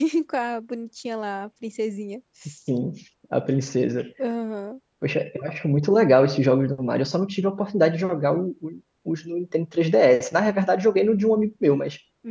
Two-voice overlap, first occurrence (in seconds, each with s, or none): none